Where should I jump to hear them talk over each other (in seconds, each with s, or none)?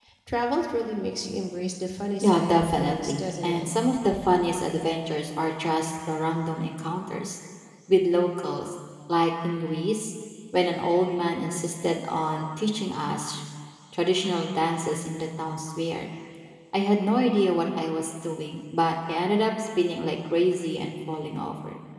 2.2 s